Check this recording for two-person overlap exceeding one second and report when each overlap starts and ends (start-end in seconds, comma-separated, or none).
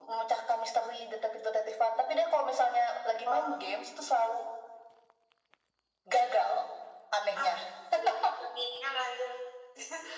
none